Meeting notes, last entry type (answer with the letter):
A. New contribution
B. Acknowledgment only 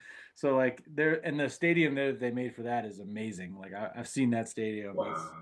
B